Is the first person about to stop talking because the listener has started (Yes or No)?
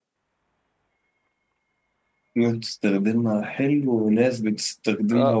Yes